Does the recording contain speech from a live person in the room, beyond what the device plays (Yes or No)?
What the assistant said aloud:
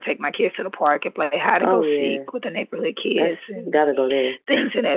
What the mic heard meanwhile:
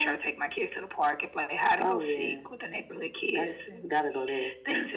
No